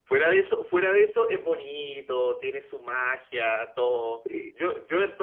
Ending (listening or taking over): listening